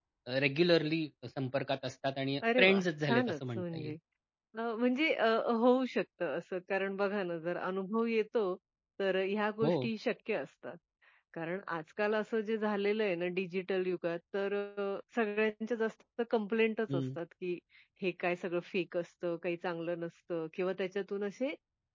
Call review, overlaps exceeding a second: present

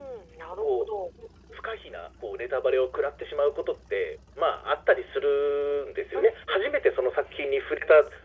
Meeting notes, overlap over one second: none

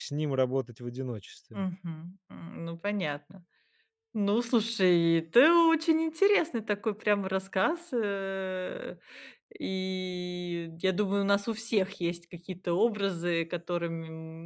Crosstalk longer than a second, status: none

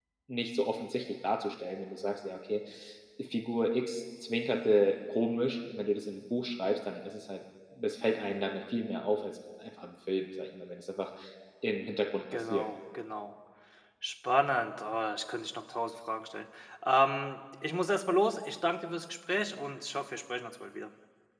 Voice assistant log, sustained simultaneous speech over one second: none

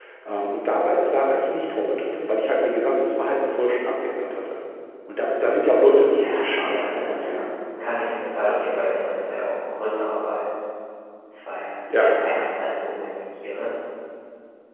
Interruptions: present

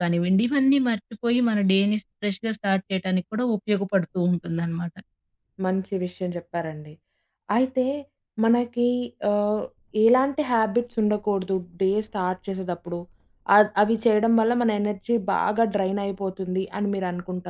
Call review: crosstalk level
none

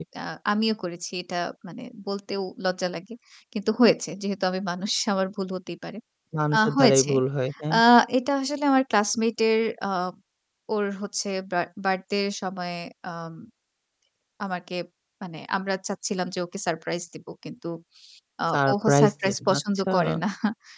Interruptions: present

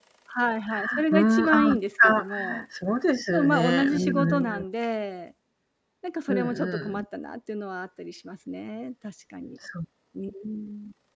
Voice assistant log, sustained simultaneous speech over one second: present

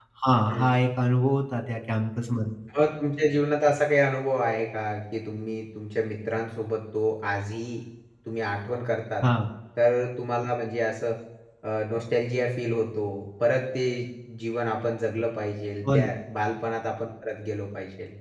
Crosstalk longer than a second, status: none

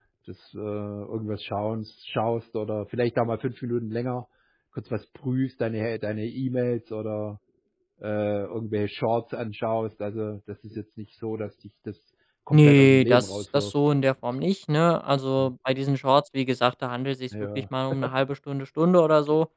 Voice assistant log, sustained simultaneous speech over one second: present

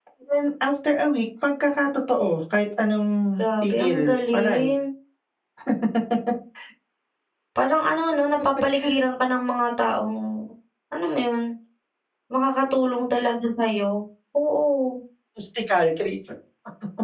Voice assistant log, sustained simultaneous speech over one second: present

